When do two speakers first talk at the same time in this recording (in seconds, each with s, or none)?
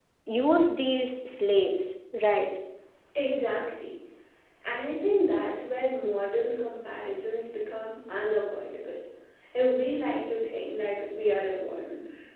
none